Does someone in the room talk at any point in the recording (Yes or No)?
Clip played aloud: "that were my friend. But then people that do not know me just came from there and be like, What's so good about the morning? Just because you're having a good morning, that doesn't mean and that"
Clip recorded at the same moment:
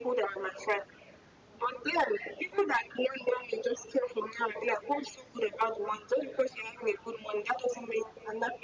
No